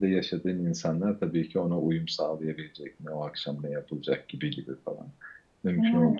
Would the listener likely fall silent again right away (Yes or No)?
Yes